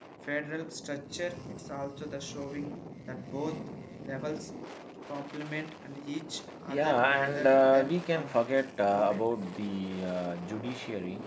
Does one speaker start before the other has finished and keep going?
Yes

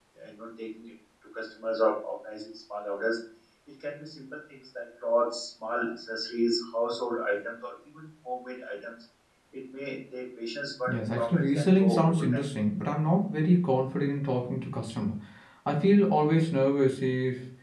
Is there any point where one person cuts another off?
Yes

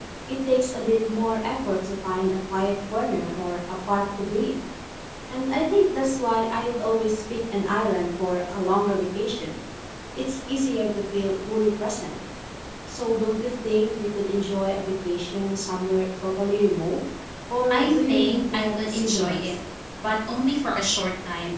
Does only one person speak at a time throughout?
No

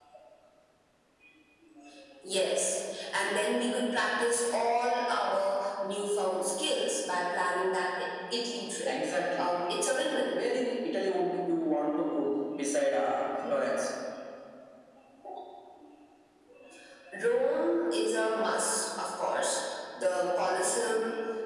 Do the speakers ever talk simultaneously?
No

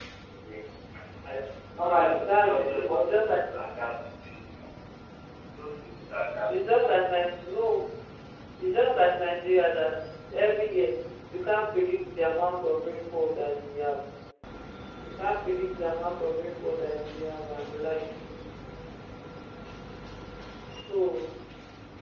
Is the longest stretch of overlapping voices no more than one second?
No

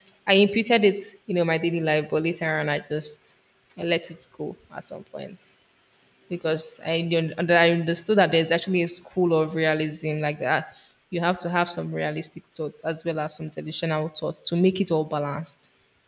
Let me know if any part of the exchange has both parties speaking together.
No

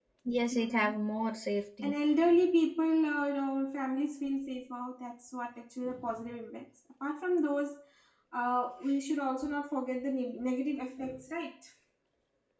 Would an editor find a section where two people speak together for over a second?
No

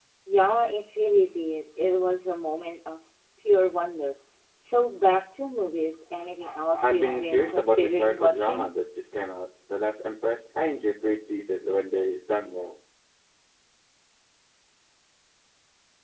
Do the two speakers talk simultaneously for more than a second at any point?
Yes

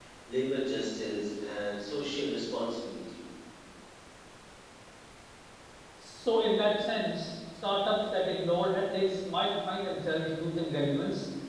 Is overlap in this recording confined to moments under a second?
Yes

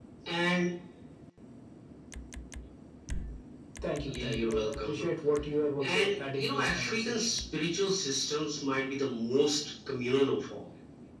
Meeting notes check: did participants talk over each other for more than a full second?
Yes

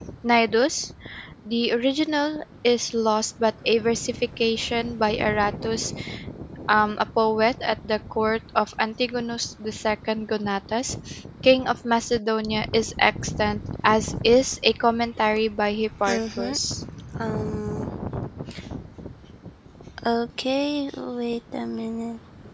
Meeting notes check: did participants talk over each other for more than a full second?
No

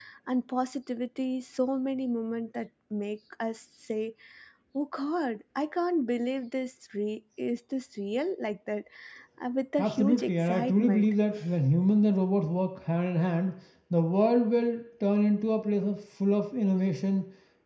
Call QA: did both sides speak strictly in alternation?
No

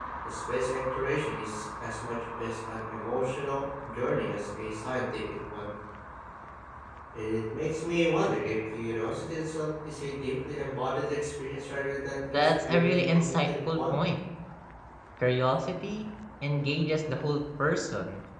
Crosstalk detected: Yes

